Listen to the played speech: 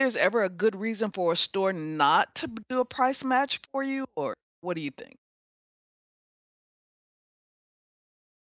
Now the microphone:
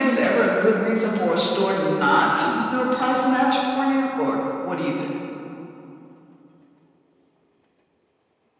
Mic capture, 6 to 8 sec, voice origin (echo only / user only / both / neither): neither